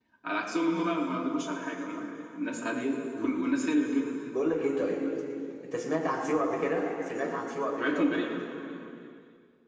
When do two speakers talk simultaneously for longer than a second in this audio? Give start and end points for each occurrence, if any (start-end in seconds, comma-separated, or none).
none